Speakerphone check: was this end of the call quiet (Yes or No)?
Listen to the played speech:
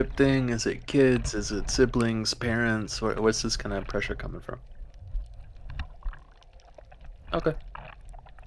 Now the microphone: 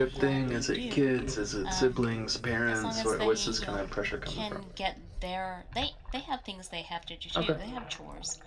No